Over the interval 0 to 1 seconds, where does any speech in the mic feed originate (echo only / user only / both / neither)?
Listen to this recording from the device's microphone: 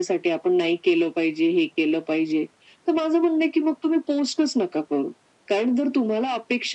echo only